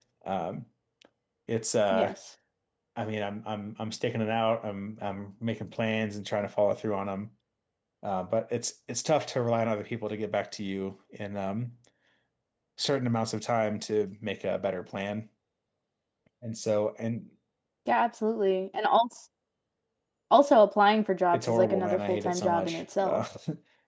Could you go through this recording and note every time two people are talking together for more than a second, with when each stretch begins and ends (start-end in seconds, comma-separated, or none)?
21.3-23.2